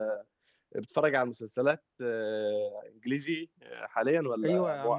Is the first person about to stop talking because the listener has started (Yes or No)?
Yes